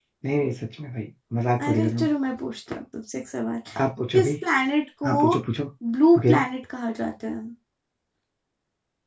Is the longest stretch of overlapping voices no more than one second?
Yes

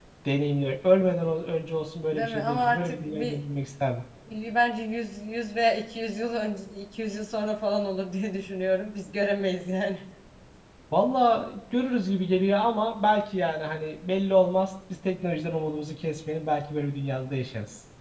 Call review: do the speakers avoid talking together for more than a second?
No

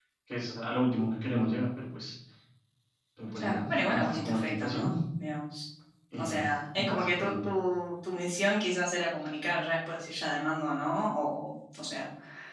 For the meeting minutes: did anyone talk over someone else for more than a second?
Yes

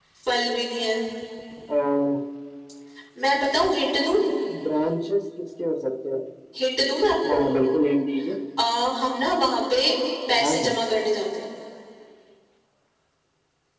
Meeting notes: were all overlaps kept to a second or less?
Yes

